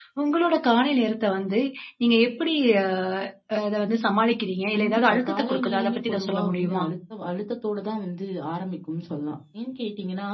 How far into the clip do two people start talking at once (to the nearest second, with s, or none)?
5 s